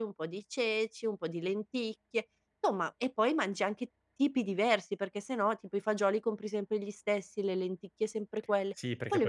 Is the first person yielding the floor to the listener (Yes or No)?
Yes